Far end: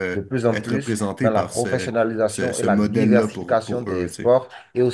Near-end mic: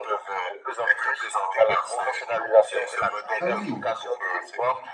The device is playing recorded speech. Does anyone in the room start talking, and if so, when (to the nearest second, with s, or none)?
3 s